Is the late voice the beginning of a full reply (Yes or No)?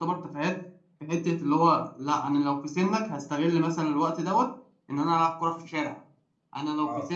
Yes